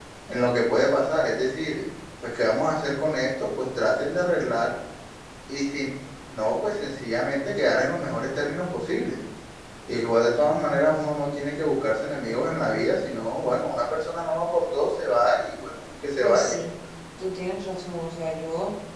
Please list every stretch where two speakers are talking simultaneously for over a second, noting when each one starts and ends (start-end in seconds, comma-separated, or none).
none